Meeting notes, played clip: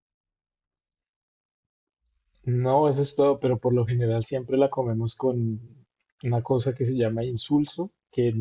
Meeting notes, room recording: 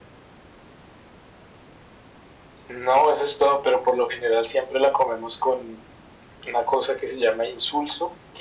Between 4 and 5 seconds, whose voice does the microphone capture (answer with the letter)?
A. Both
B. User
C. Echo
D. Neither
C